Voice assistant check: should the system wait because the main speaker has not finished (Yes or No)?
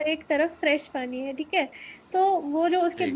Yes